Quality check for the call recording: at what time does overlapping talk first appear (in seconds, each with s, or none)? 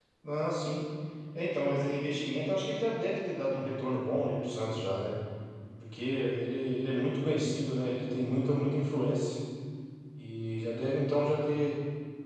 none